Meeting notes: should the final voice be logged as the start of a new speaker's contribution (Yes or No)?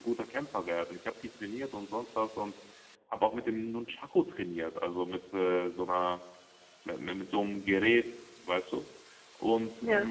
No